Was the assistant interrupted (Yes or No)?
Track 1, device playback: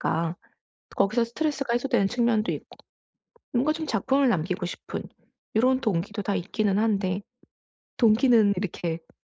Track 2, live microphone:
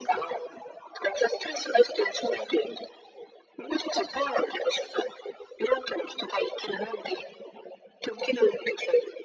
No